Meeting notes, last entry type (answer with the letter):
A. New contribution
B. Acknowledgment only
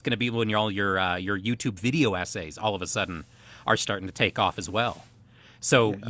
B